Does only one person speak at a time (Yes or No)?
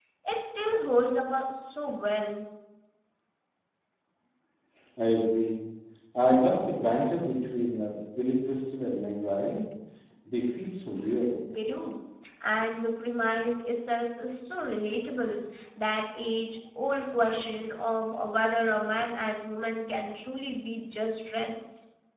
Yes